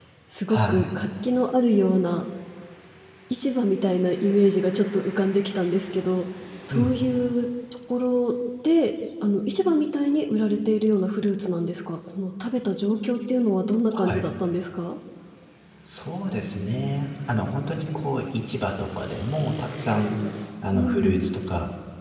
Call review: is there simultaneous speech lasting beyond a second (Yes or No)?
No